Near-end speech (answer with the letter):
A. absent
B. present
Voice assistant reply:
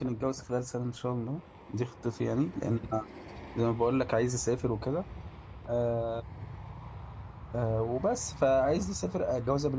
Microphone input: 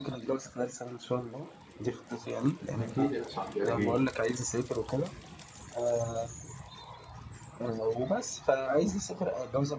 B